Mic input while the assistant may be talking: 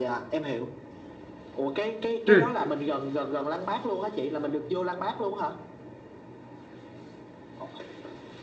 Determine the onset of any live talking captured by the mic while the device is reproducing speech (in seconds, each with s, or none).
2.3 s